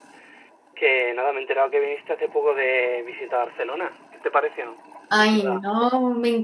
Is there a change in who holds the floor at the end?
Yes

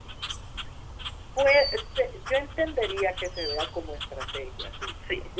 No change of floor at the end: Yes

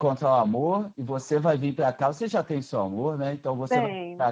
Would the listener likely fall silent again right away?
Yes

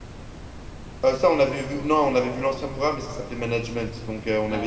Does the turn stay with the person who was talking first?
Yes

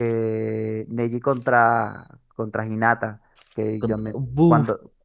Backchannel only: Yes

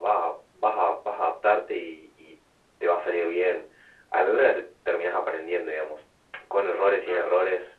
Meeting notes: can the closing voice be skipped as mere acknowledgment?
Yes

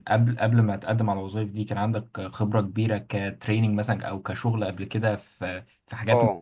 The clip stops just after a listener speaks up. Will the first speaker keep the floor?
No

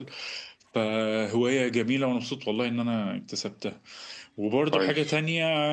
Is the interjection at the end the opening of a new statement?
No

